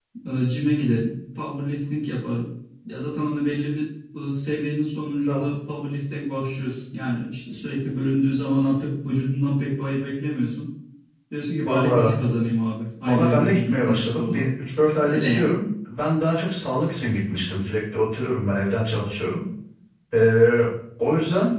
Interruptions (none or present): present